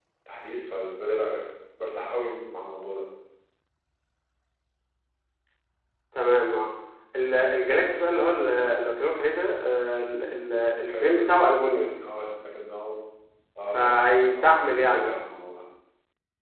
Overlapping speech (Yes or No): Yes